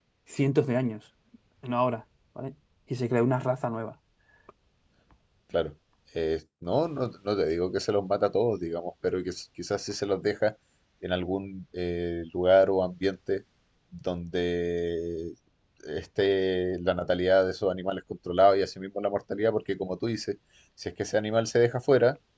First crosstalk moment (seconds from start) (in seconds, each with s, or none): none